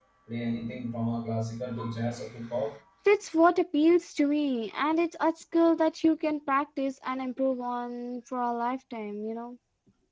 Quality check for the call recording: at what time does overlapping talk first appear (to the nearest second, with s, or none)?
none